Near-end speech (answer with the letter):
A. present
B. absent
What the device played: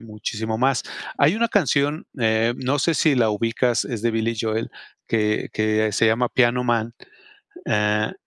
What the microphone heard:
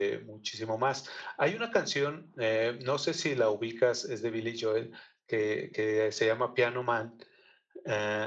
B